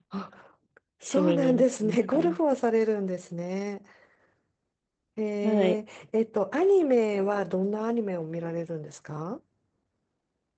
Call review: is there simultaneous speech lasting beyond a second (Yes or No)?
Yes